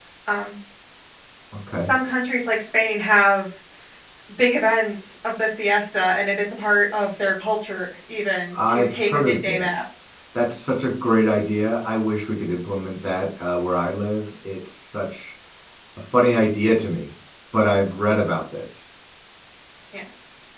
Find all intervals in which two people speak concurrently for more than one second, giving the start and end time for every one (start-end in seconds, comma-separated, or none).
8.6-9.8